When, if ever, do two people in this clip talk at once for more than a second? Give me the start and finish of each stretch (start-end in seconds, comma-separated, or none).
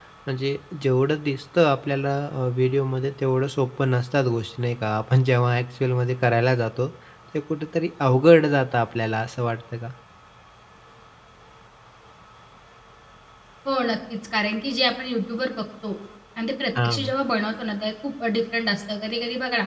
none